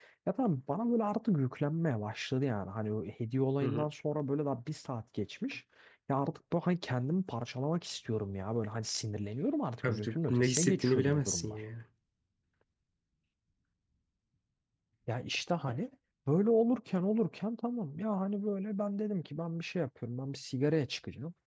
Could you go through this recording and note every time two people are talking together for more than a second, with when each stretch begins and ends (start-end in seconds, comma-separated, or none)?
9.9-11.6